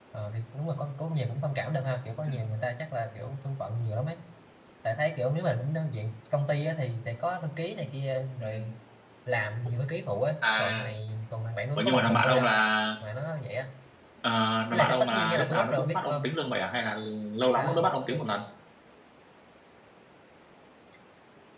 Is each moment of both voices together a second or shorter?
No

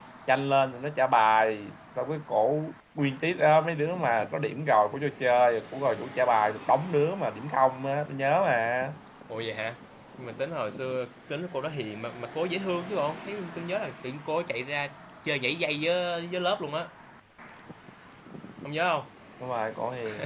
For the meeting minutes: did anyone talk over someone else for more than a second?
No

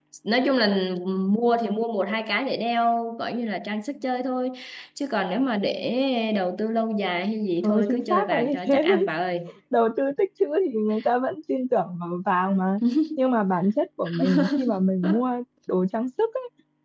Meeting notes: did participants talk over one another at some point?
Yes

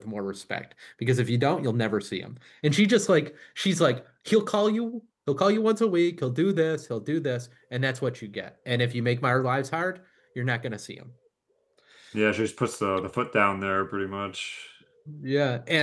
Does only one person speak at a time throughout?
Yes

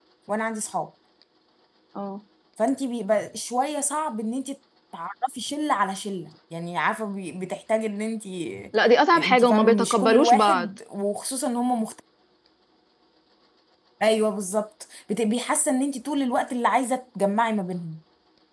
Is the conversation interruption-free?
No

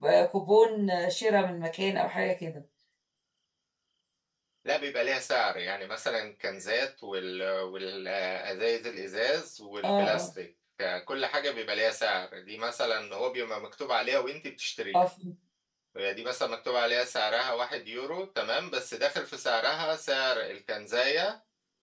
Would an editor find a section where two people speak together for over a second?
No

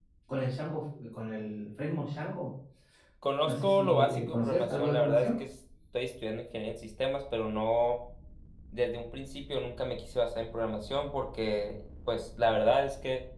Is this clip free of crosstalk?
No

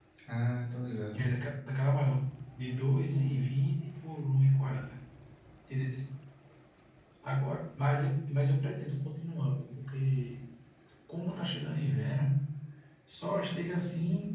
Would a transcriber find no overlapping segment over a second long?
Yes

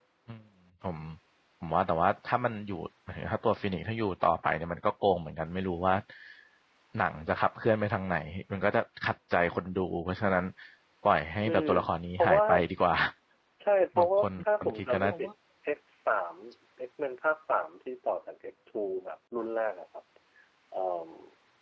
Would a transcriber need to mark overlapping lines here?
Yes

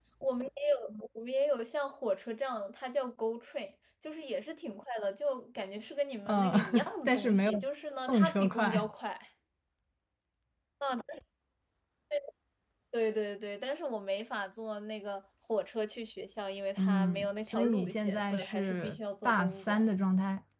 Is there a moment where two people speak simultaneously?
Yes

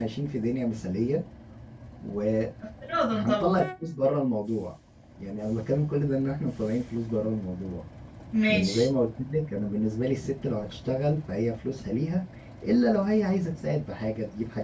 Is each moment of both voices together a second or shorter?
Yes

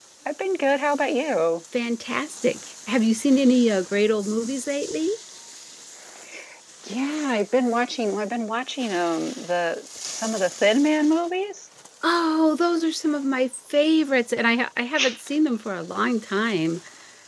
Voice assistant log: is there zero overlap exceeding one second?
Yes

